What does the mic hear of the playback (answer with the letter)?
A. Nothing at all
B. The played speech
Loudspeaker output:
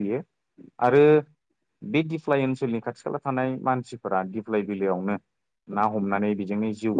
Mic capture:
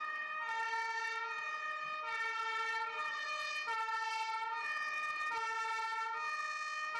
A